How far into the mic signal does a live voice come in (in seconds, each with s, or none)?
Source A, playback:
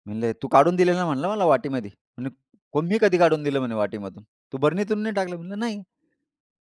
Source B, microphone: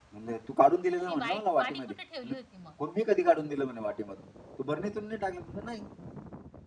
1.1 s